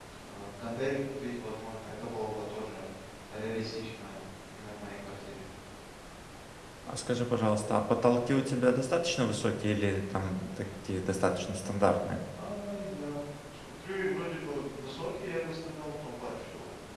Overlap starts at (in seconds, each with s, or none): none